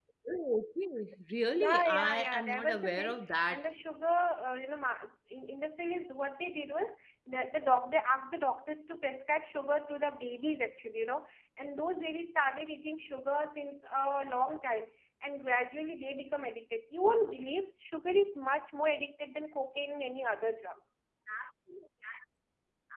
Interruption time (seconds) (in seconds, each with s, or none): 1.6 s